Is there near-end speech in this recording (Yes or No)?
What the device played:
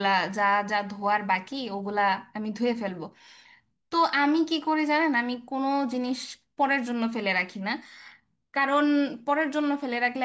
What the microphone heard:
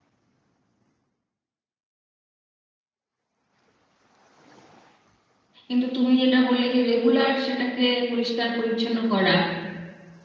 Yes